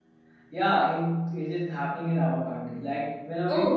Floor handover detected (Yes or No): Yes